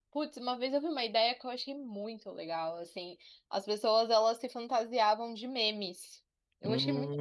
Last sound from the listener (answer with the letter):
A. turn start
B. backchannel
A